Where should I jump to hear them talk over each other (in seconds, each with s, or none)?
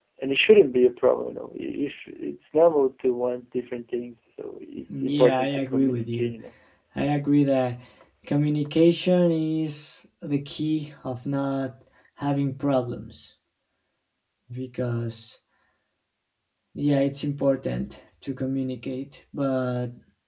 4.9 s